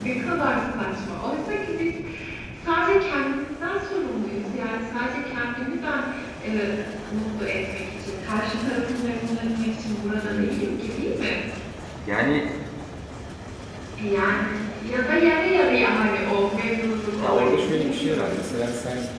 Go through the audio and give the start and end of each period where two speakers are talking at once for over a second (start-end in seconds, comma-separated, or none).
17.2-18.5